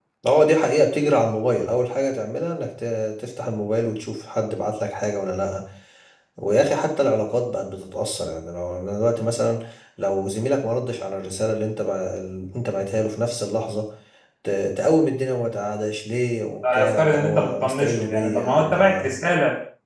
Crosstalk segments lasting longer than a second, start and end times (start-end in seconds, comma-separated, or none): 16.7-19.1